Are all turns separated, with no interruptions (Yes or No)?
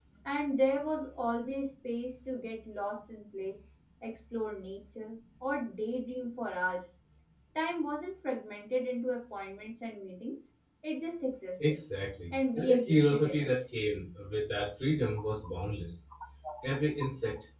No